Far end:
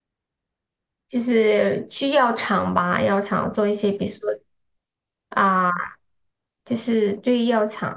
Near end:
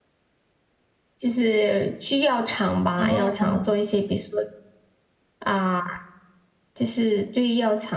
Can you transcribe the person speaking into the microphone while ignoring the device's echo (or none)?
哦，